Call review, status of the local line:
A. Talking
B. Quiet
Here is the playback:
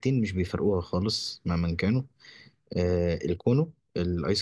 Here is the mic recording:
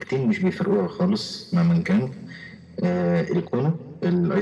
B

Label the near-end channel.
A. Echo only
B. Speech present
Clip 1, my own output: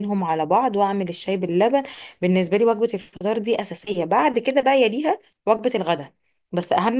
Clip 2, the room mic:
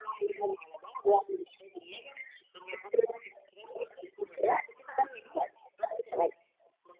A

